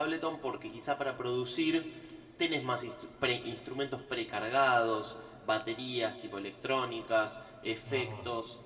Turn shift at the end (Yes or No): No